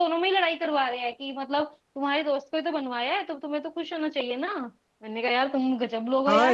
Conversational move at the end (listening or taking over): taking over